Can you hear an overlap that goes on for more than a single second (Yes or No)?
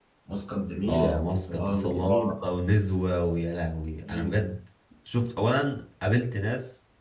Yes